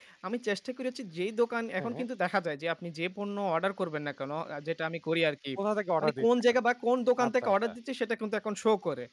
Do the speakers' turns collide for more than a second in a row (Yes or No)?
No